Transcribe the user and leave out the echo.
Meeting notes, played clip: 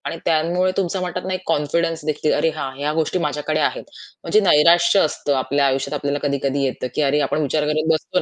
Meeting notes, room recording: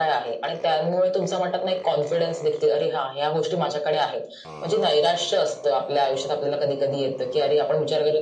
none

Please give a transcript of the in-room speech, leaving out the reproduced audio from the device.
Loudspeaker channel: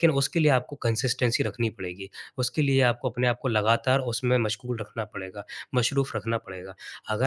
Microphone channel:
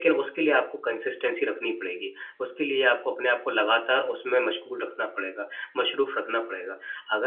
none

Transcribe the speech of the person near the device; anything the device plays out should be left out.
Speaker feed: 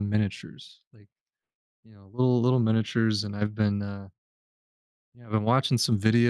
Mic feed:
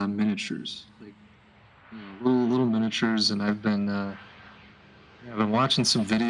none

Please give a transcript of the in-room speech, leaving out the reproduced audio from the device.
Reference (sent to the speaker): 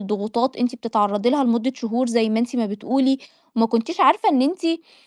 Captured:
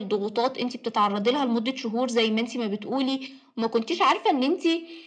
none

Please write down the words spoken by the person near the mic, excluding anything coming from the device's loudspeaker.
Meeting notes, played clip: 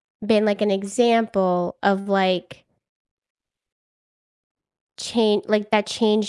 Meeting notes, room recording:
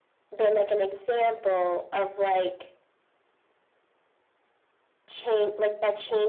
none

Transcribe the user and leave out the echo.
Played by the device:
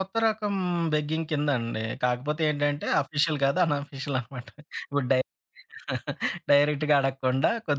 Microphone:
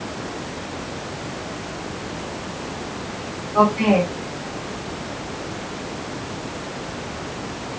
ఓకే.

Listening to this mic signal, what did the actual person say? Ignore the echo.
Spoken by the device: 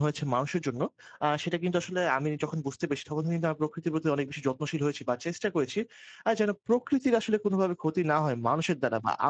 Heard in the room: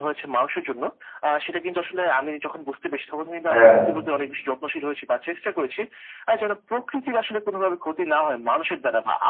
হ্যাঁ,

